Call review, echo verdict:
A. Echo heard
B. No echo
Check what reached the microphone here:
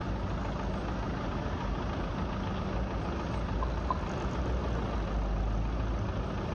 B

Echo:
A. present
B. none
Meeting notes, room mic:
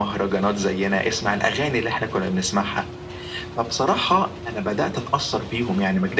A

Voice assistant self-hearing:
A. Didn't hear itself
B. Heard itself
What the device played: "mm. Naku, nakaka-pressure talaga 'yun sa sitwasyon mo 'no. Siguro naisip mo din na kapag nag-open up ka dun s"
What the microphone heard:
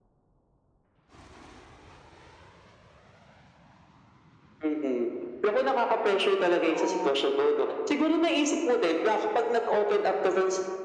B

